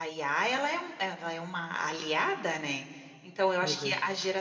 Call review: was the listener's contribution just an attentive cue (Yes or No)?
Yes